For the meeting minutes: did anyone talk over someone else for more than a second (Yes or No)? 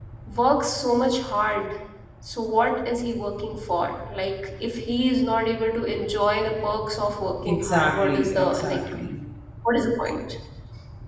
Yes